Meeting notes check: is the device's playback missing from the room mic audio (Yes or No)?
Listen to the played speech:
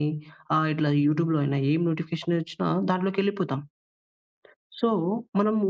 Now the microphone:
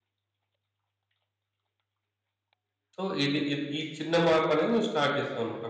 Yes